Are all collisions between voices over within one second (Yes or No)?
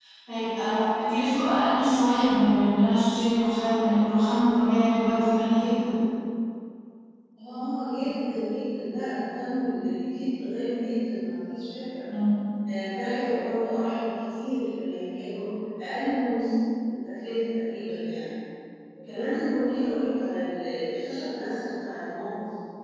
Yes